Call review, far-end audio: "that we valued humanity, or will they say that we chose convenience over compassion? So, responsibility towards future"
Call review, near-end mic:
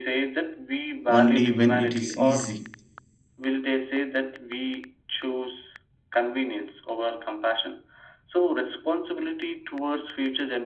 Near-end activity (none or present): present